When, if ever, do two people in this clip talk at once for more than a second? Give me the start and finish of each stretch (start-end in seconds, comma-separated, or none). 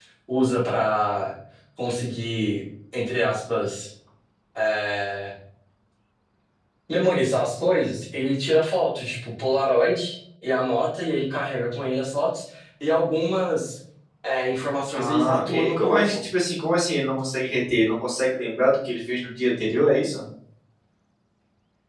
14.9-16.2